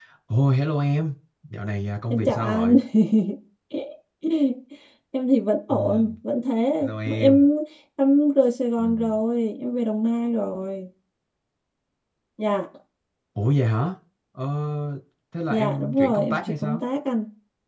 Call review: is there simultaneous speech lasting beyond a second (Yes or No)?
Yes